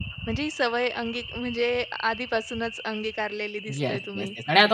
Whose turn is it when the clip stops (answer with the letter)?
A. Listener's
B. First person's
A